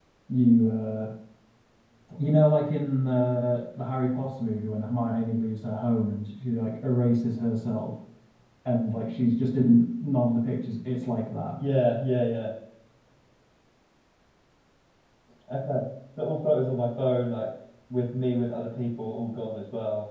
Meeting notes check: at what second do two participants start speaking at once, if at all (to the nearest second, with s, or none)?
none